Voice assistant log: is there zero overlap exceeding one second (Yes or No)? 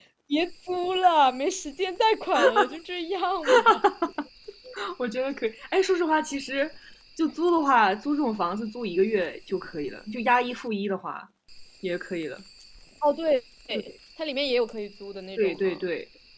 Yes